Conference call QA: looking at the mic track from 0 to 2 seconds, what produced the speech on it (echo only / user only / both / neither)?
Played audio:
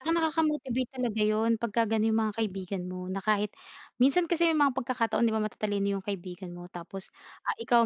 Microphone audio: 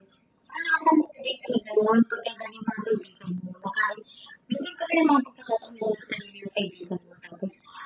echo only